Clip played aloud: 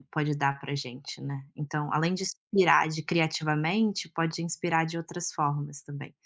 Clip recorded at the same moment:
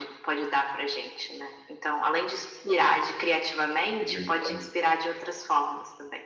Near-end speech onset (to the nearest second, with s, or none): 4 s